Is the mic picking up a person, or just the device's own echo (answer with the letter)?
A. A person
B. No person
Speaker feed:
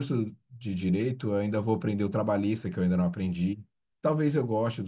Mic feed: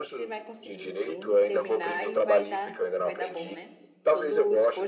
A